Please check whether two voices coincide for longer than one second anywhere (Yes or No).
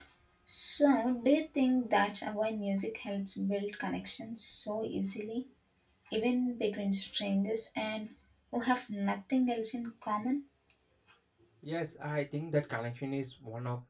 No